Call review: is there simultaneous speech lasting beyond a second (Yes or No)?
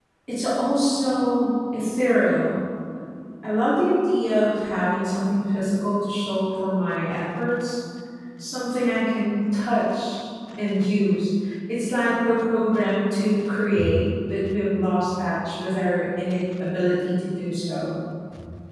No